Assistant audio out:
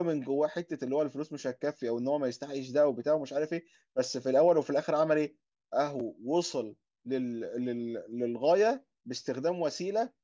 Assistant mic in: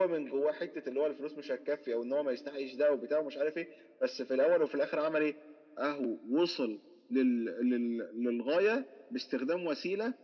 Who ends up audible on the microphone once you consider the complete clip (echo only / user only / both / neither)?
echo only